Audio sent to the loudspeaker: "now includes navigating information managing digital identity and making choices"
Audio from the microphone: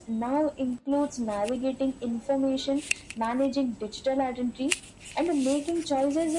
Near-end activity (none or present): none